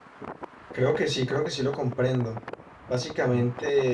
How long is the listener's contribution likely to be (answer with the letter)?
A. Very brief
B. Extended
A